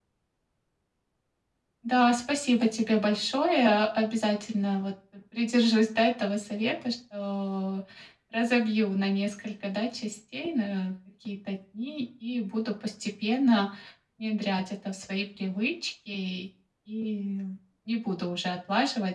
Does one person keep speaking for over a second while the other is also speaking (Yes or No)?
No